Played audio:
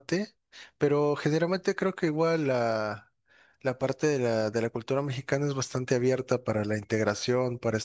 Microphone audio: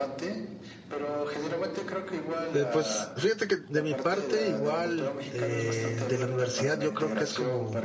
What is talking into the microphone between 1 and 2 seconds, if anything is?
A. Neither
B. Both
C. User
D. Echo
D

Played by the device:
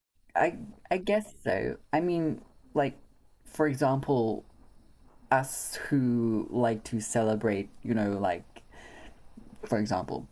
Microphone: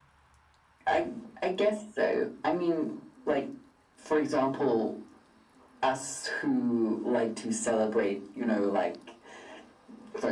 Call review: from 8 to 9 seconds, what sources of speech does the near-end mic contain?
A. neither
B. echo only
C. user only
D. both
B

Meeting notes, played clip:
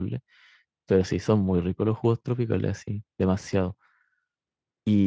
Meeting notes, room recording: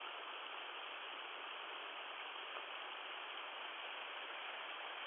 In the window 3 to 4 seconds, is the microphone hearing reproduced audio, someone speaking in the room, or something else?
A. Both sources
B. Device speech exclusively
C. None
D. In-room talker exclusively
C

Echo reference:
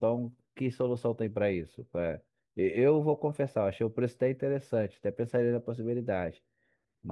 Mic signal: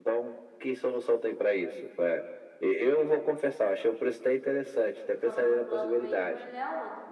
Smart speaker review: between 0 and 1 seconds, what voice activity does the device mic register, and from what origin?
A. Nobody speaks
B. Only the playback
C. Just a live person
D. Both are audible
B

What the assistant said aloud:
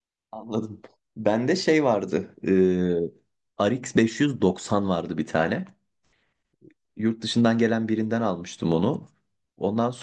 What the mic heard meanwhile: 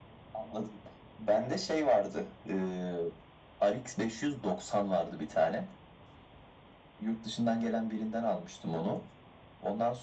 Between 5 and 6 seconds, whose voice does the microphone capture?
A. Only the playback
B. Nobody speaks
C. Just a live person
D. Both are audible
A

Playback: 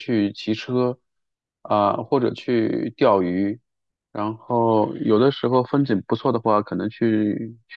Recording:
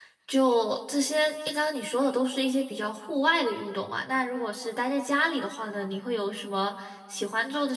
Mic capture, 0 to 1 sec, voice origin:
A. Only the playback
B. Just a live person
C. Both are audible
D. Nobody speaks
B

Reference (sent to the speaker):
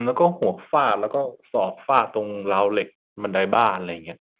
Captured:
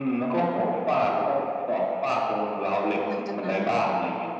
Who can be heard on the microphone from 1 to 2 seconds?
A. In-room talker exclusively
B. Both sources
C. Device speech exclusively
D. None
C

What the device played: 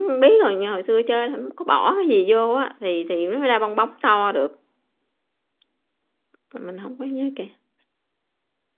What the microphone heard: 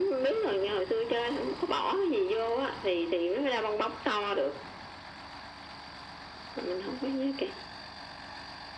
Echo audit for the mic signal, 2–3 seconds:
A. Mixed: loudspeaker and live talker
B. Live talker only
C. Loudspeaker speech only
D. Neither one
C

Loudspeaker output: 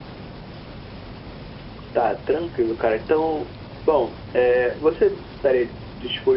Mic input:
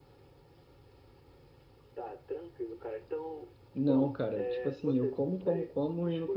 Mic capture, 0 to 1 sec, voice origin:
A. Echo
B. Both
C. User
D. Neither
D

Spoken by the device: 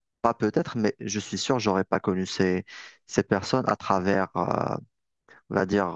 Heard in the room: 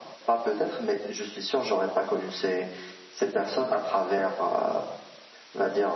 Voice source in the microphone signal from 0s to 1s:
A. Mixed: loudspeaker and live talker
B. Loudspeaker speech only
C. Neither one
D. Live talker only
B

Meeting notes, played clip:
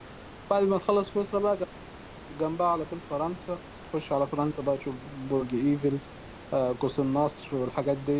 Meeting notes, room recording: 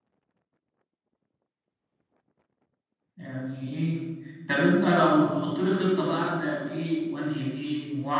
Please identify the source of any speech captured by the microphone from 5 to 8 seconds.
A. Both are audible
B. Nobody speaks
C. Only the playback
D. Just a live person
D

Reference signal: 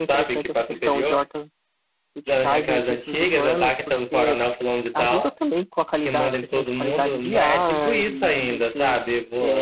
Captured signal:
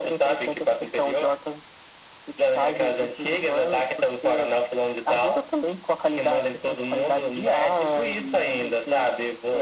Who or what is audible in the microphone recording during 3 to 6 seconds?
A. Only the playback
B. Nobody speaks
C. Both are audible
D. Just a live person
A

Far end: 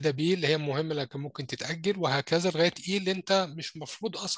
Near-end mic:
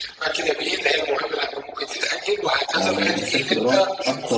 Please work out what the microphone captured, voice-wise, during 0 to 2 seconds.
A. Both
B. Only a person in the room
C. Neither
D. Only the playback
D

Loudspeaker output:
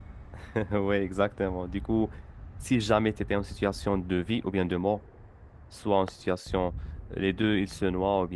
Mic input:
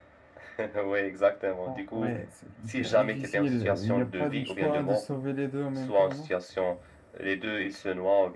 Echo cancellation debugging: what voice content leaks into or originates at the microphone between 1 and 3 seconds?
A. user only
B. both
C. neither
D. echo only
B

